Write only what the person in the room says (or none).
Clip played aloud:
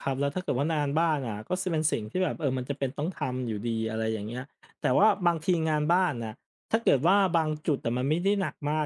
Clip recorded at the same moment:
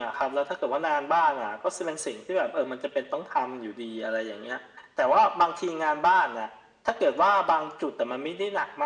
none